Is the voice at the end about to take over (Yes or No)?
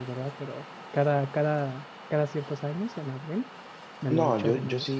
Yes